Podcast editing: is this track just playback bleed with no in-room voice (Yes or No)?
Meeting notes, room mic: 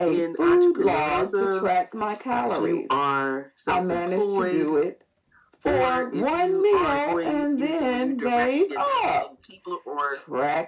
Yes